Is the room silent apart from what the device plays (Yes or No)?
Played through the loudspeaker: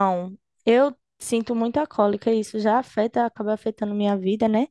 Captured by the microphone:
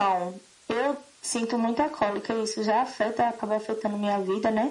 Yes